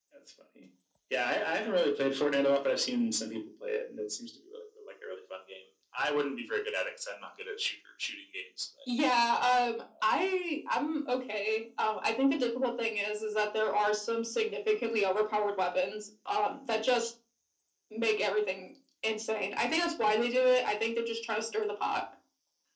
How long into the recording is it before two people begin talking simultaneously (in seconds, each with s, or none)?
none